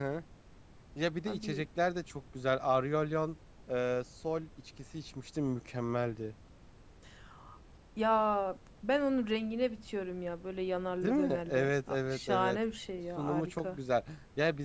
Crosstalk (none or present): present